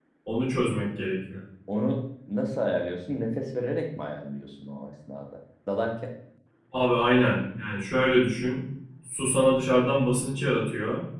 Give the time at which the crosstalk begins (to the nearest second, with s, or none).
none